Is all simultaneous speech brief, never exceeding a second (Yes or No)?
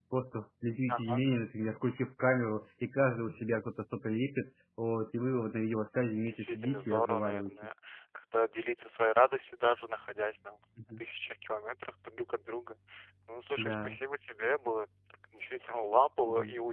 No